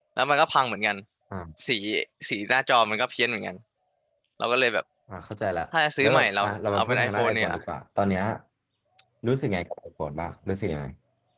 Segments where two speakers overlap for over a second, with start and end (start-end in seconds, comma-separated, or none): 6.0-7.5